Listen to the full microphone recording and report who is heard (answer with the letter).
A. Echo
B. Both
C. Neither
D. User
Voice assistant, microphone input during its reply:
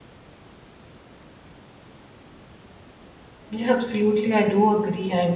D